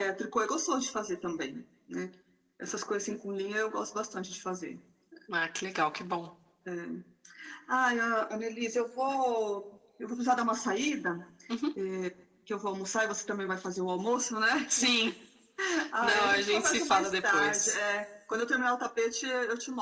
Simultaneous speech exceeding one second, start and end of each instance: 16.0-17.7

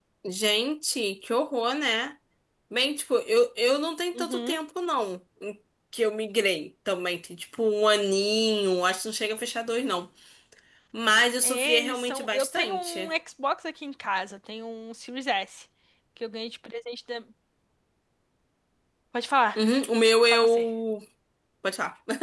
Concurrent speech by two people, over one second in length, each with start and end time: 11.4-13.1

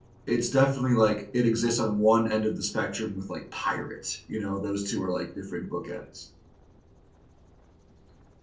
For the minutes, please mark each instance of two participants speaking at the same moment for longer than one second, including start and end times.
none

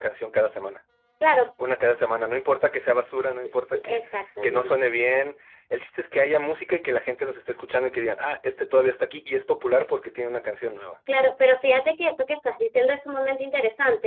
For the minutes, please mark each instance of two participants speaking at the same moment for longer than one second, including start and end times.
none

